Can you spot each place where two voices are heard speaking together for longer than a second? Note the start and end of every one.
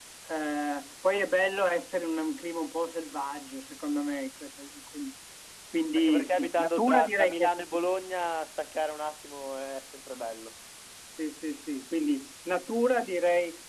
6.0-7.7

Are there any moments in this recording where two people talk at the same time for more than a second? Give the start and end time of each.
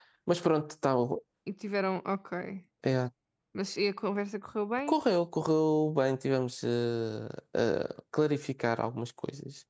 none

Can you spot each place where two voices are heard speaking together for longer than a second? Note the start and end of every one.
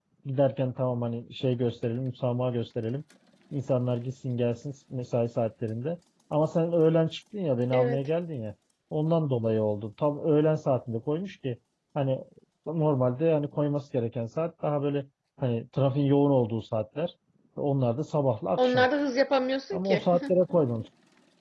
none

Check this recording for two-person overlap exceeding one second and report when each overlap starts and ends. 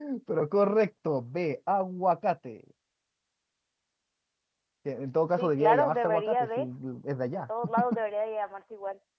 5.4-6.6

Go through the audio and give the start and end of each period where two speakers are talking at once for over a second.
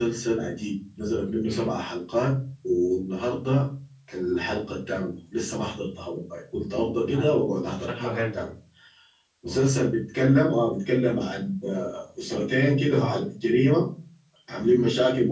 7.1-8.4

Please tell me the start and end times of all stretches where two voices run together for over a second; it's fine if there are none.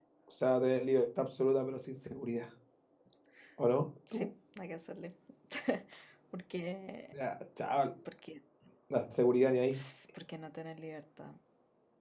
none

